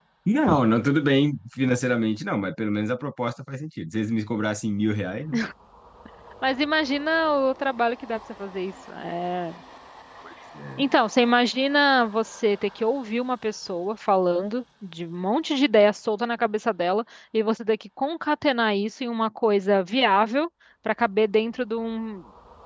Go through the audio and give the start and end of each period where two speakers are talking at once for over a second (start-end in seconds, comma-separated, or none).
none